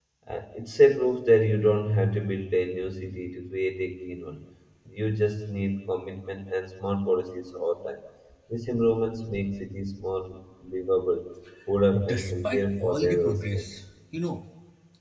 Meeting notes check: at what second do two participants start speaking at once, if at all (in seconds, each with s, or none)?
11.9 s